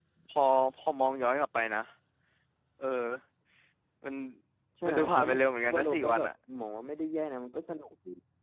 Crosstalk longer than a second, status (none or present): present